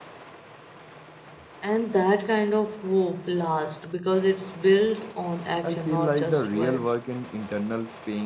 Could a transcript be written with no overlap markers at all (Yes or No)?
No